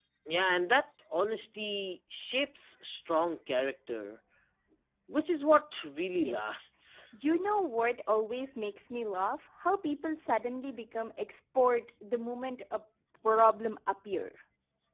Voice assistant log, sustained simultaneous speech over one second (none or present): none